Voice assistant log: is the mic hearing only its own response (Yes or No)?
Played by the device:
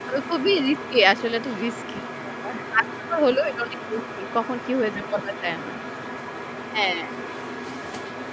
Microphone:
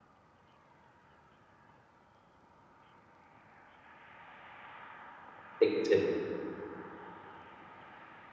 No